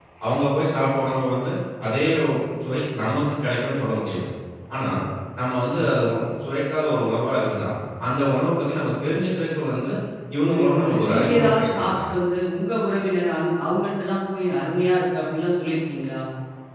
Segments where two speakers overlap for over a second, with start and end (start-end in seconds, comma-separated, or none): 10.4-12.0